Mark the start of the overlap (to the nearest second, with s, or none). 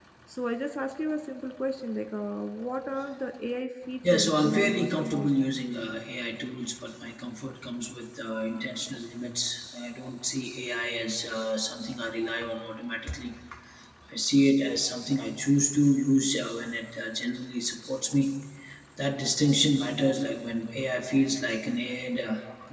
4 s